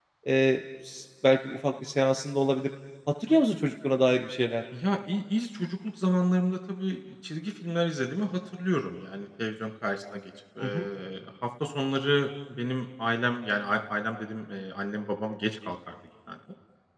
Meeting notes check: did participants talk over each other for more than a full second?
No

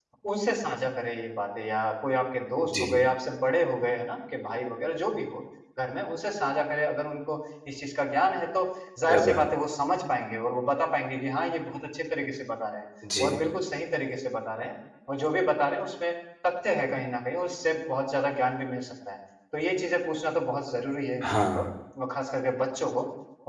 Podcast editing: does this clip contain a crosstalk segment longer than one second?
No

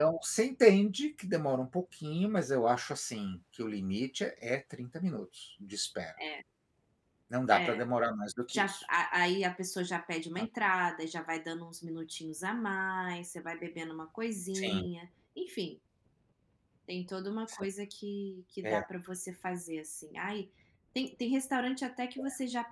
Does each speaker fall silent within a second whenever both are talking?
Yes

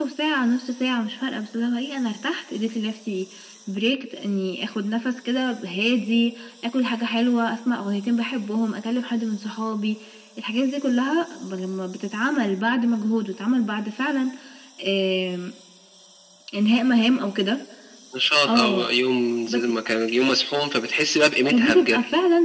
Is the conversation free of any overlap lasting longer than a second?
Yes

